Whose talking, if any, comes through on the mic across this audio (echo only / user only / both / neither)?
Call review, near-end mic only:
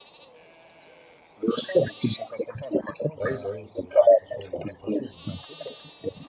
both